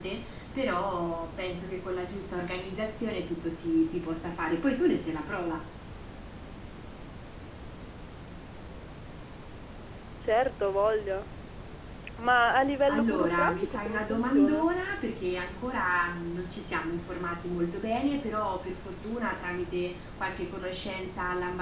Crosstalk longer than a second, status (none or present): present